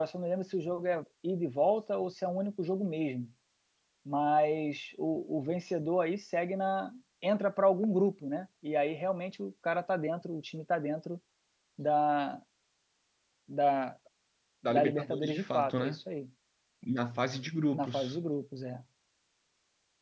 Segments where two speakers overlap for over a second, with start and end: 14.7-16.0

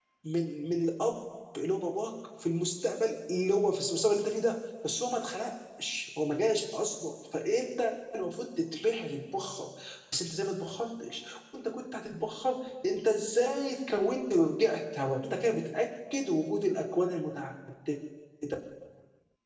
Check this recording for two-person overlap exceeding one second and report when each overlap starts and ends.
none

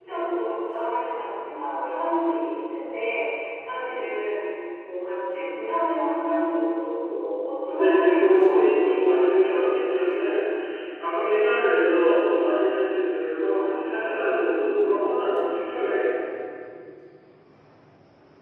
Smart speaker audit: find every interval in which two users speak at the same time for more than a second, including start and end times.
7.7-9.1

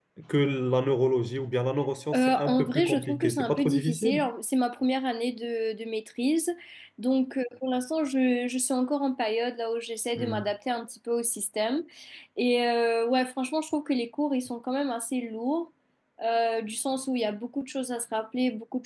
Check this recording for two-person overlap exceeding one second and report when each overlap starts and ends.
2.1-4.2

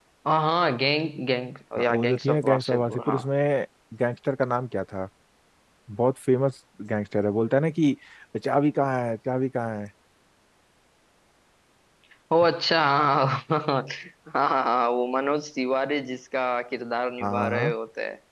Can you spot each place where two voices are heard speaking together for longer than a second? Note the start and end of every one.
1.8-3.2

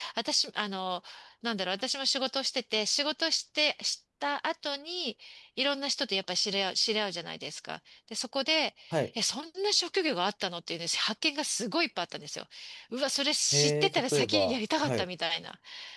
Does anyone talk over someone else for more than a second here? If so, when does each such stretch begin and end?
13.5-15.1

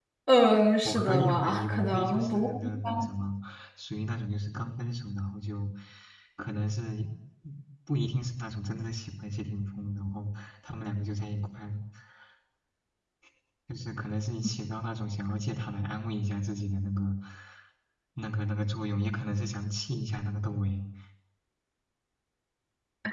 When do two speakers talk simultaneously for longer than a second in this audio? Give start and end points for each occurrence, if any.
0.8-2.5

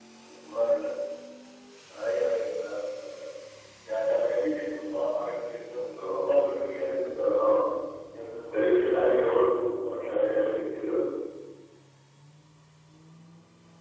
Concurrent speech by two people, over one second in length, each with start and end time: 6.1-7.4

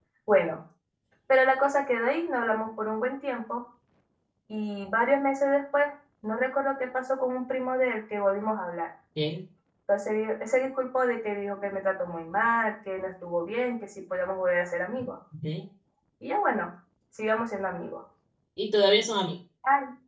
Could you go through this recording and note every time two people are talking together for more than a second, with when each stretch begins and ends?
none

